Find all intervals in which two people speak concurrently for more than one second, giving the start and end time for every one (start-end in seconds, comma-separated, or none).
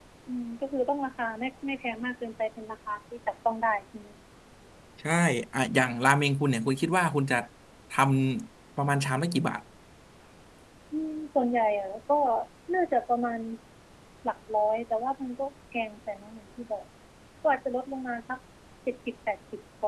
none